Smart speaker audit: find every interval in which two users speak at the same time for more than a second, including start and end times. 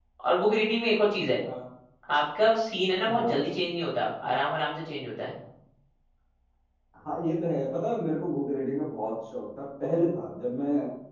none

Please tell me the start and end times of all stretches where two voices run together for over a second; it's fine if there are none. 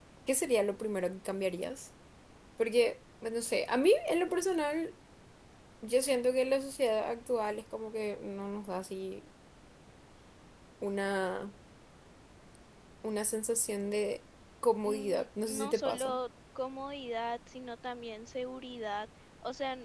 14.8-16.2

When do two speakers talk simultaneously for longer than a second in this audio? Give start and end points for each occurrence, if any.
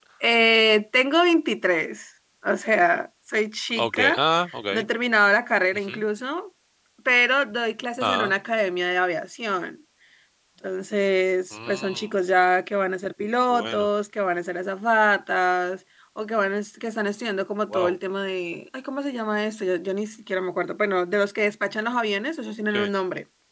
none

